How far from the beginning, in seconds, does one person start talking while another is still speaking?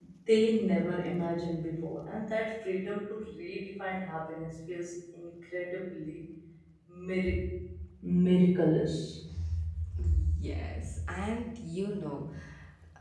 none

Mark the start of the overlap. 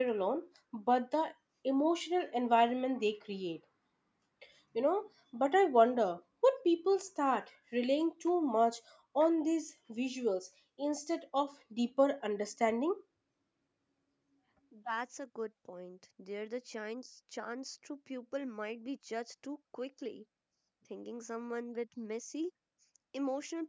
none

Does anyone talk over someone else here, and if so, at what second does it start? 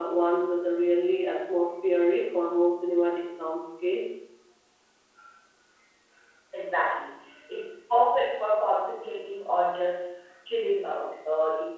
none

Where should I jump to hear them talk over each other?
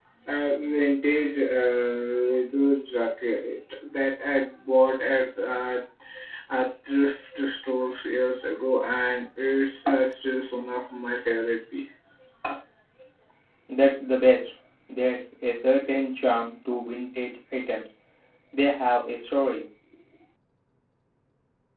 none

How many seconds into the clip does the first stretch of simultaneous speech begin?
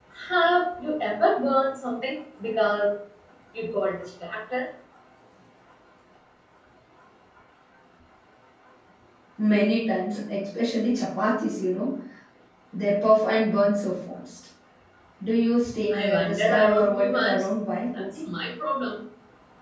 15.9 s

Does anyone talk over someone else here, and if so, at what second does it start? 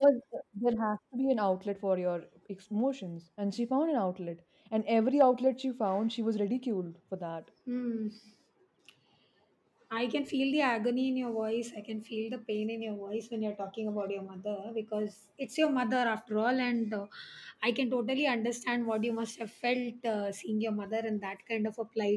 none

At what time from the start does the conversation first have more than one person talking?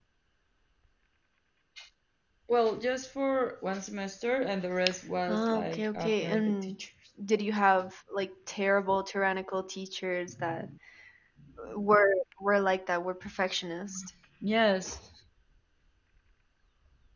5.3 s

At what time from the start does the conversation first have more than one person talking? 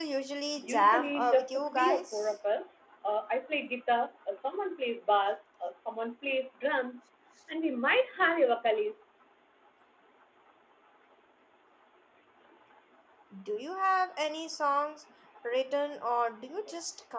0.6 s

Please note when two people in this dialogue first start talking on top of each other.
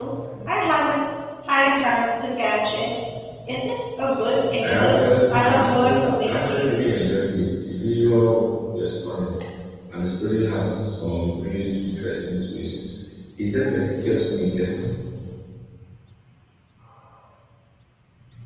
4.6 s

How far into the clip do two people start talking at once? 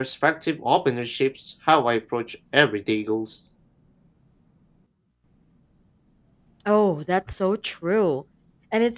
none

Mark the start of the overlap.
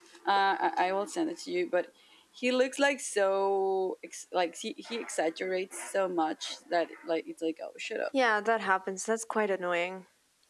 none

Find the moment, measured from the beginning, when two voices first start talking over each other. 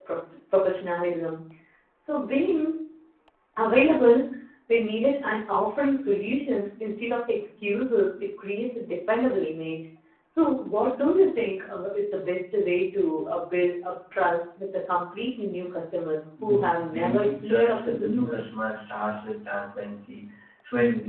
16.4 s

